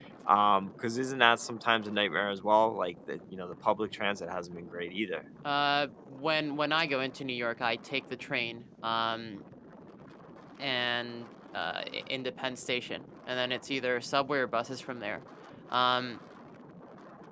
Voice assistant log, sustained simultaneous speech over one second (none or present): none